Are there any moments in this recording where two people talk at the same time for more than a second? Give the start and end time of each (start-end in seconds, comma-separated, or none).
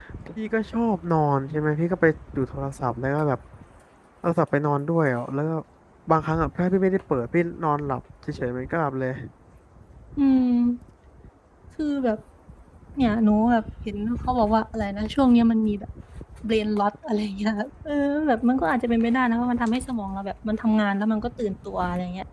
none